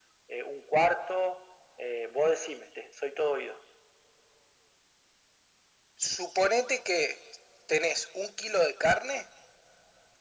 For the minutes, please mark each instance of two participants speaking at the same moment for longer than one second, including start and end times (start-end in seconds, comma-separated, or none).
none